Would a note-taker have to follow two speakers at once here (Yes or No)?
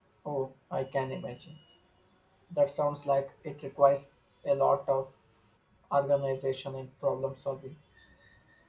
No